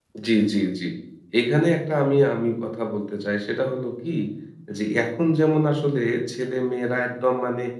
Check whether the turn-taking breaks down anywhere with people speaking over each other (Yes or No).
No